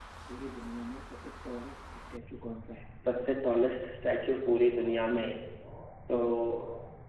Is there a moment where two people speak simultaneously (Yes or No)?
No